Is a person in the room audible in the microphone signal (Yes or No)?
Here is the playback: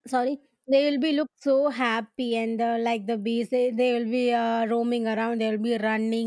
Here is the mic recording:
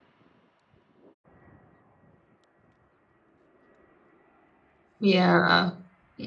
Yes